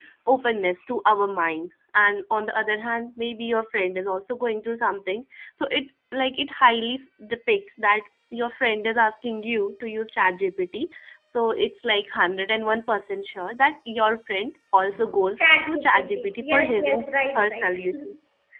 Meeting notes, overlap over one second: present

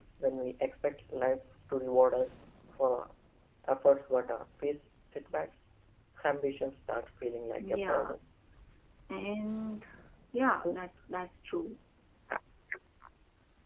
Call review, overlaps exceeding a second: none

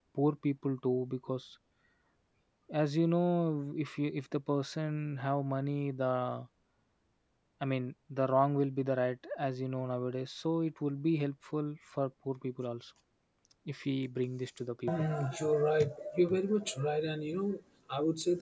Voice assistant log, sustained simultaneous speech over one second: none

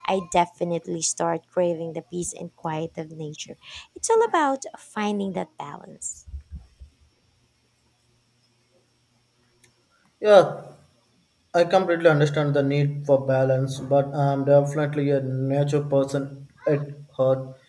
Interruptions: none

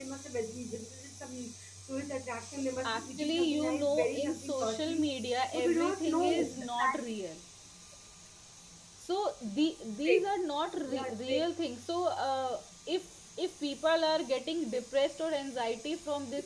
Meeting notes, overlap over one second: present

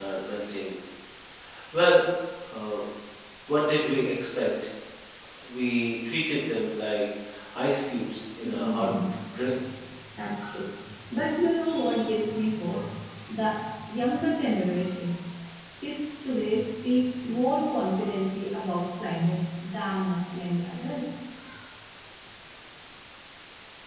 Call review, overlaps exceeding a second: none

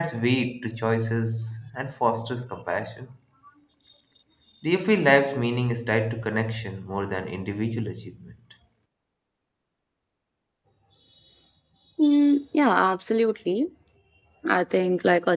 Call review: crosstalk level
none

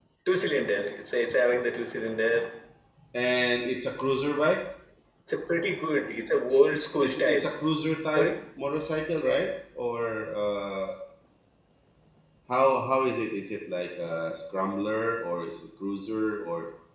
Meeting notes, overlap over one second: none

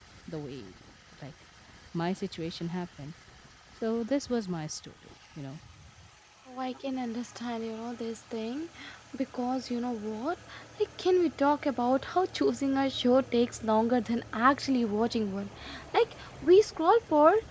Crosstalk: none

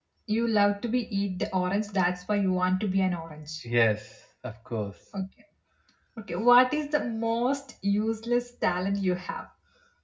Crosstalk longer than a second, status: none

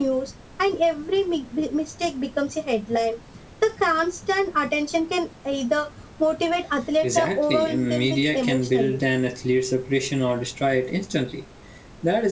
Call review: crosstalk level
present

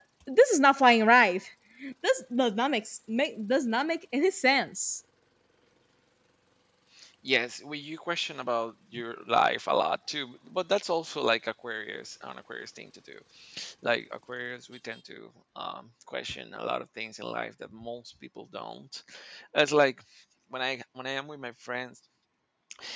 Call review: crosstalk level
none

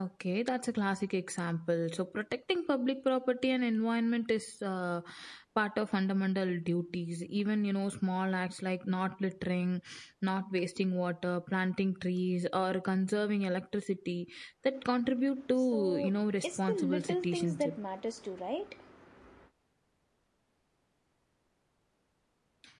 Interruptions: present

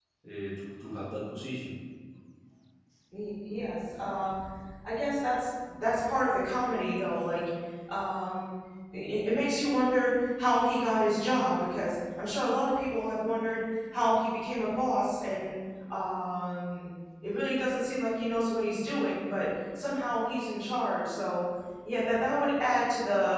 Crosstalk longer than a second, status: none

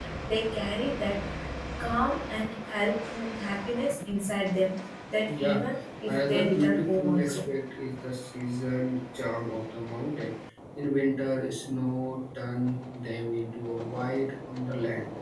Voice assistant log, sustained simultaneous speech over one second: present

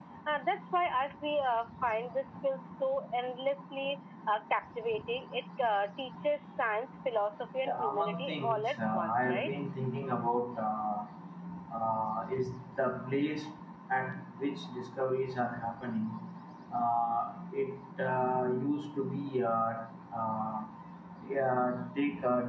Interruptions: present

